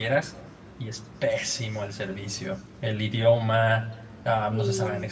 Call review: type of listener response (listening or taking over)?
listening